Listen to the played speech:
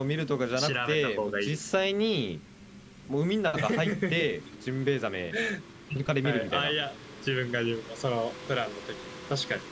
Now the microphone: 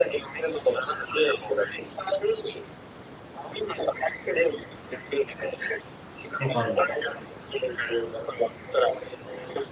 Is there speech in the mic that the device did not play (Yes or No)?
Yes